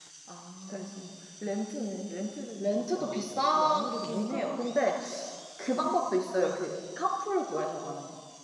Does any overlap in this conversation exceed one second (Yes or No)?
Yes